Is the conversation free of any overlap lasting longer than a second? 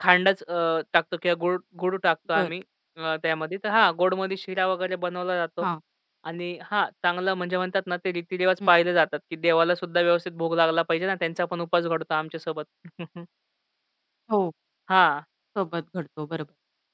Yes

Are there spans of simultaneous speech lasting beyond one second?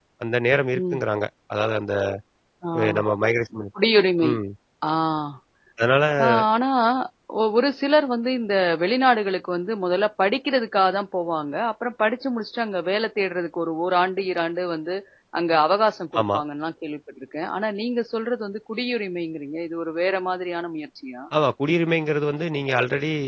No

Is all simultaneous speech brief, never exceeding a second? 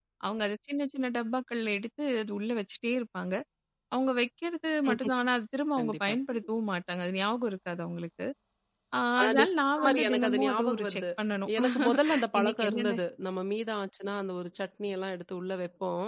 No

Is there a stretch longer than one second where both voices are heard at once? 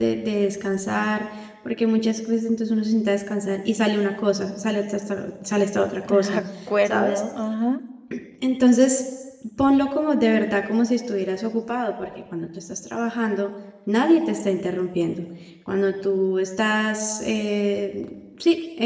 No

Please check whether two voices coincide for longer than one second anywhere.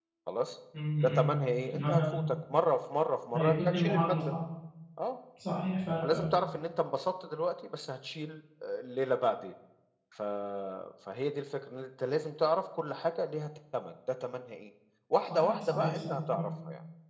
Yes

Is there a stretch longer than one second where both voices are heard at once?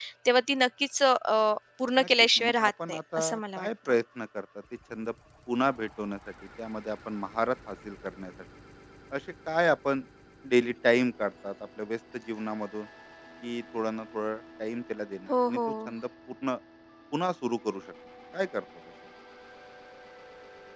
Yes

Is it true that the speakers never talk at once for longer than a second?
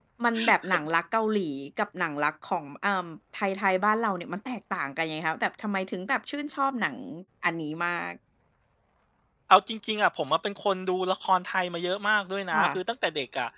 Yes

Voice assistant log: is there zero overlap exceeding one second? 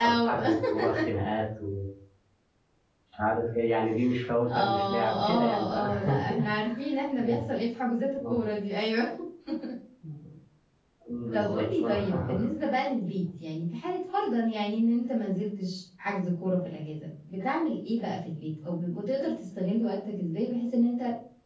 No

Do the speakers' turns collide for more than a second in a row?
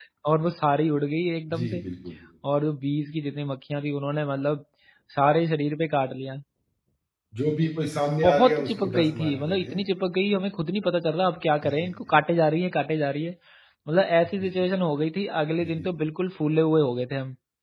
Yes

